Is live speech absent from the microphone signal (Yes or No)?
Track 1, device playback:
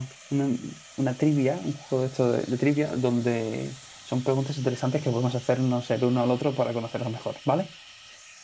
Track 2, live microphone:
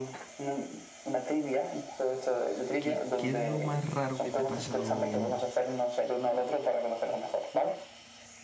No